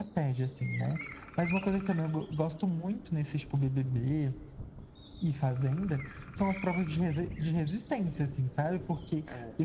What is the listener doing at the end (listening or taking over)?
listening